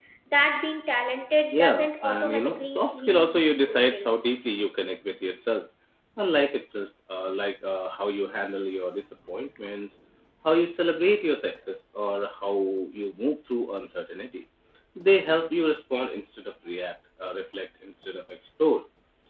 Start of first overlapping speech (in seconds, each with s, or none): 1.5 s